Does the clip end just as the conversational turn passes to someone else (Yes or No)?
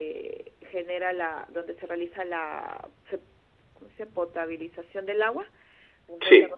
No